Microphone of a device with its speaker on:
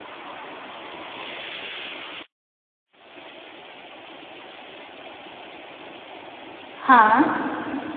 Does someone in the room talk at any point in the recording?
Yes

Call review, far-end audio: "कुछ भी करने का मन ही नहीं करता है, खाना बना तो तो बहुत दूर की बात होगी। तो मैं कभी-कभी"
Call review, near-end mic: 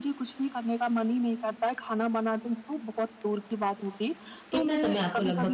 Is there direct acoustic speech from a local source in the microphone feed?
Yes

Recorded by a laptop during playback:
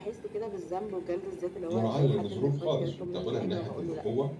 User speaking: Yes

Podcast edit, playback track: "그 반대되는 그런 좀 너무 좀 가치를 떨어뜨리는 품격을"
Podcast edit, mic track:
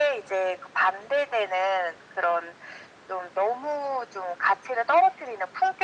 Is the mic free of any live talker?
Yes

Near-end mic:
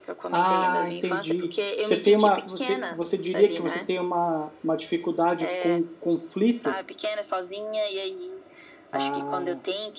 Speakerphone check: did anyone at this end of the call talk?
Yes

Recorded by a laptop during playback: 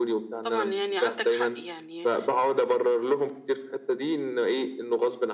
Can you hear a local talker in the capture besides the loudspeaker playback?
Yes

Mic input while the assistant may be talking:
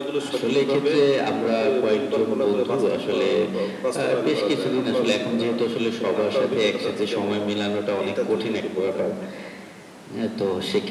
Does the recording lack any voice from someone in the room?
Yes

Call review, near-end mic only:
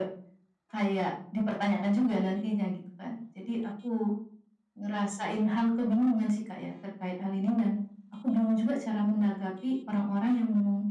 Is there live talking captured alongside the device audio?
No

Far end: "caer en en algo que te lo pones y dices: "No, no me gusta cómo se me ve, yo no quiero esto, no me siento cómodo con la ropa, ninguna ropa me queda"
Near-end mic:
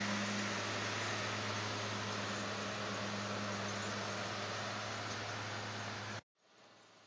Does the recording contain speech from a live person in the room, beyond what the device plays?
No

